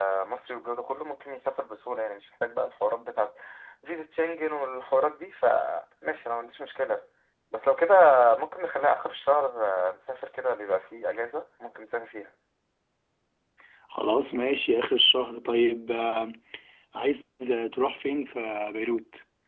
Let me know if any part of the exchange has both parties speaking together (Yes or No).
No